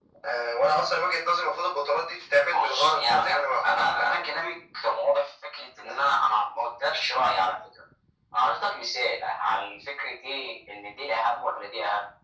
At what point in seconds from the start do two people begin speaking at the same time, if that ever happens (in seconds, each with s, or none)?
2.5 s